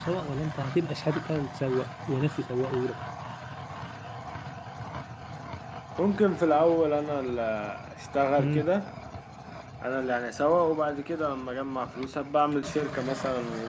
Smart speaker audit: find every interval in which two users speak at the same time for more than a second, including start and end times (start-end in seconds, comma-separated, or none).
none